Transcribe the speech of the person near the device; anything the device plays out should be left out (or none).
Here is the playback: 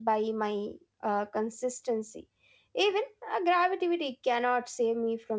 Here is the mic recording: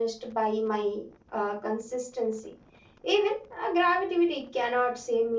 none